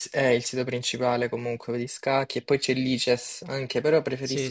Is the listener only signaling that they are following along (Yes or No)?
Yes